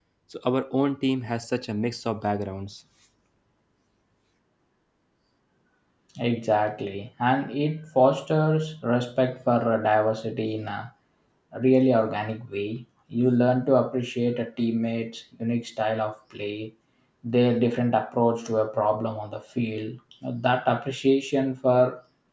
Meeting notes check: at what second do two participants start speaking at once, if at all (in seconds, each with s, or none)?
none